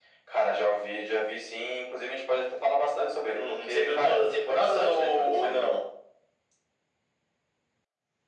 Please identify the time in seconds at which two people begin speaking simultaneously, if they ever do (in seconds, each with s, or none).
3.3 s